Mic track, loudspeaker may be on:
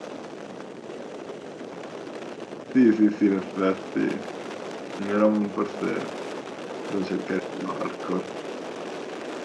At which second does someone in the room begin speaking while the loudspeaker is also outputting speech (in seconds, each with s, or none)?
2.7 s